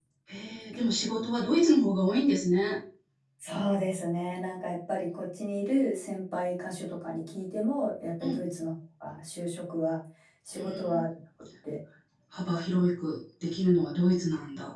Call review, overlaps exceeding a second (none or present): none